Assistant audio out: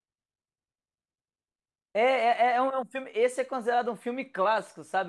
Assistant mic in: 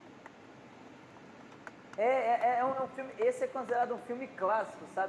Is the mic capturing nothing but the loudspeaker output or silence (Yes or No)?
Yes